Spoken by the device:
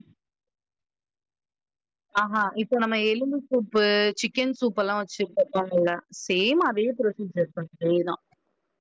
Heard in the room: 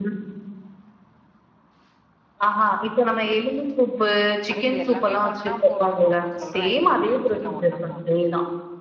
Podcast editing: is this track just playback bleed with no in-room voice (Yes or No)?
No